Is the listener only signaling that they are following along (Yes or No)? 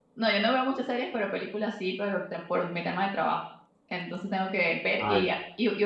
Yes